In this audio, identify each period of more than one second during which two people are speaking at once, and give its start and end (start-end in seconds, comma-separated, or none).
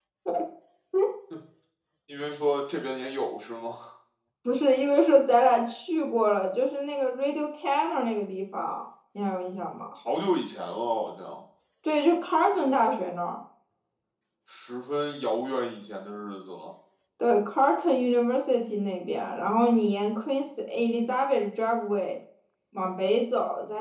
none